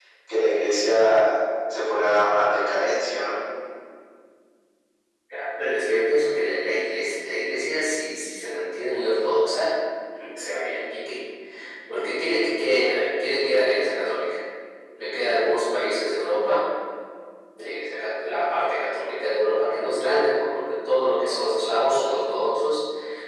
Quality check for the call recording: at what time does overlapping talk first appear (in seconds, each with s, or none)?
none